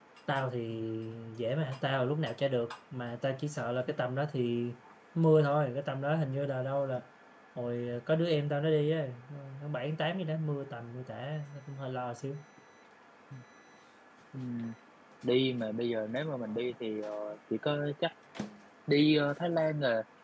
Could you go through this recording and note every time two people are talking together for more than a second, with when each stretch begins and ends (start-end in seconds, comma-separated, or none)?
none